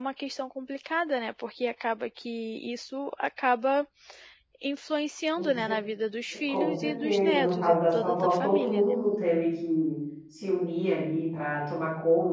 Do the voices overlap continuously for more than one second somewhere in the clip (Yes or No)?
Yes